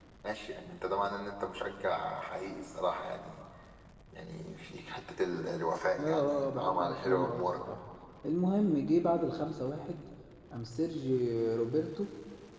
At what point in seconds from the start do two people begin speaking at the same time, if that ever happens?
6.0 s

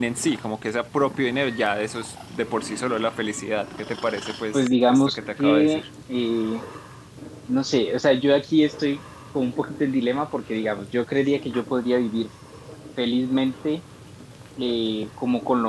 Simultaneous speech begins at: 4.5 s

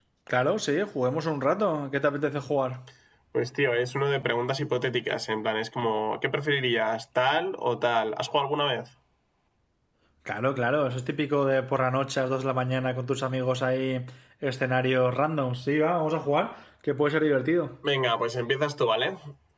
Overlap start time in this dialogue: none

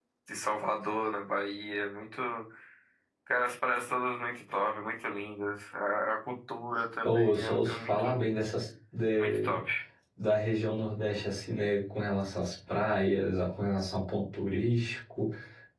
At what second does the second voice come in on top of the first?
7.0 s

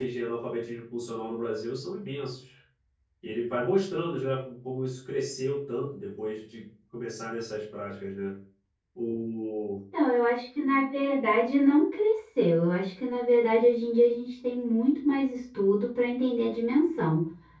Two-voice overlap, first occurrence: none

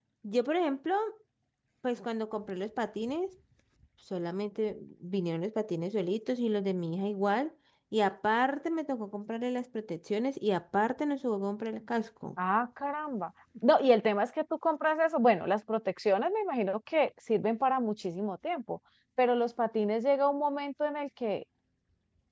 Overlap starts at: none

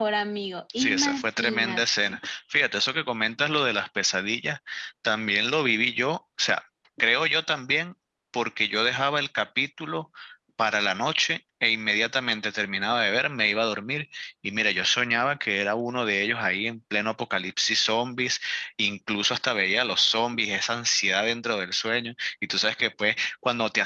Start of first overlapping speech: 0.8 s

